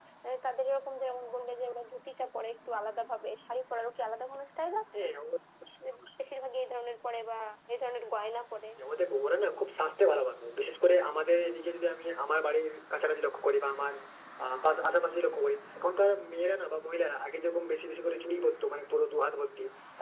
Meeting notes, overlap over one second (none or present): none